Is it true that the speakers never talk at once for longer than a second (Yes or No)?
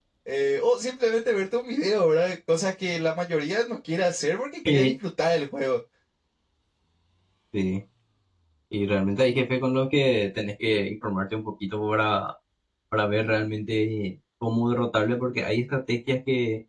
Yes